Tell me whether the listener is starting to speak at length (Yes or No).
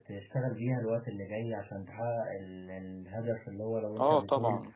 No